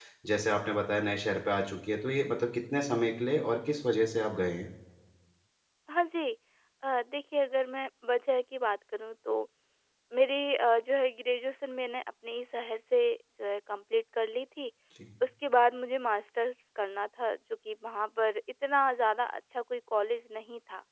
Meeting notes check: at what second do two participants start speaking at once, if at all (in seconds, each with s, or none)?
none